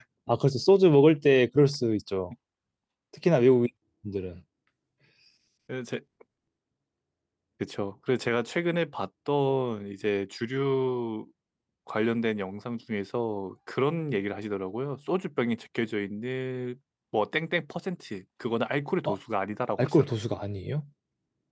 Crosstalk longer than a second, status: none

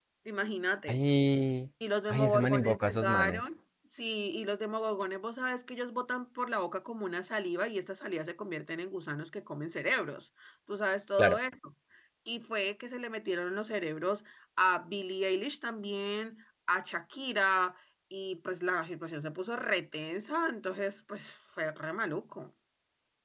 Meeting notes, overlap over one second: present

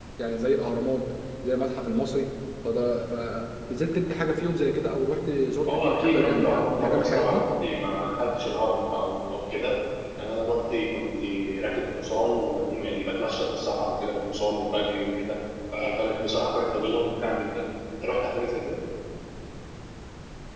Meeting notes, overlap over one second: present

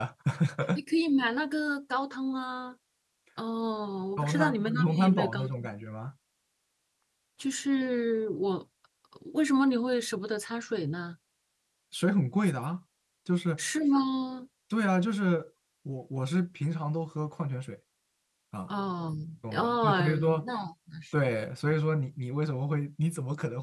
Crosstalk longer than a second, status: present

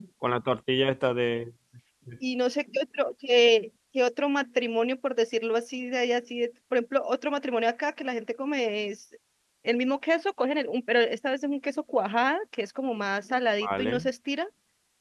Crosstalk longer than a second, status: none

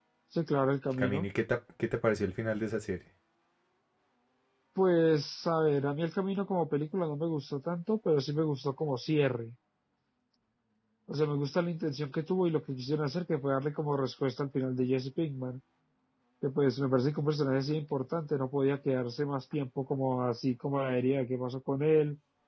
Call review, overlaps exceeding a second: none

